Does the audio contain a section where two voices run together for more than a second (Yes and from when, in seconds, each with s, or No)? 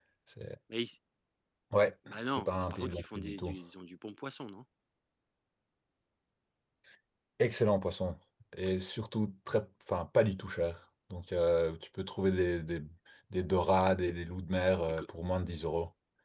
Yes, from 2.3 s